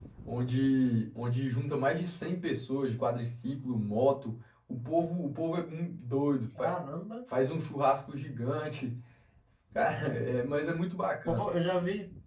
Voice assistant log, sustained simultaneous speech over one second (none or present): none